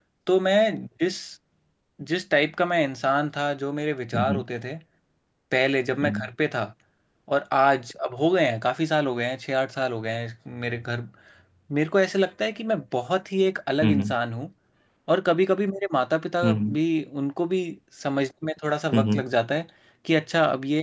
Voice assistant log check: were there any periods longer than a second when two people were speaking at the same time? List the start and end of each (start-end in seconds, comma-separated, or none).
none